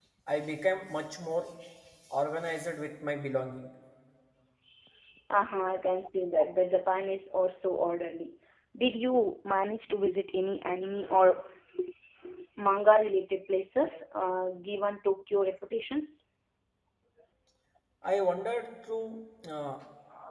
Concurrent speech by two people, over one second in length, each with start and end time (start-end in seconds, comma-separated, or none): none